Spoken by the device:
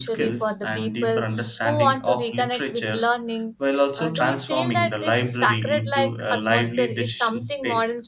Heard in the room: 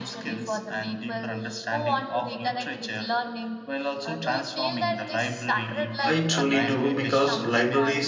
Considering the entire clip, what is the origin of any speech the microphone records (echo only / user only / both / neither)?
both